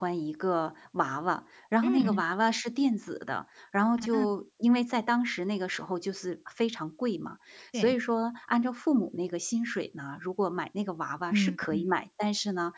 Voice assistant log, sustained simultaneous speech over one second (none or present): none